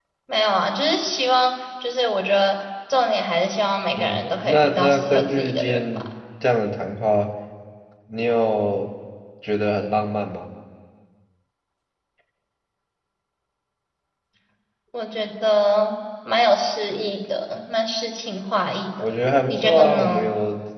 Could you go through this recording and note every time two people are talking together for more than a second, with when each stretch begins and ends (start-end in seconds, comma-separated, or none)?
3.9-6.1, 19.0-20.3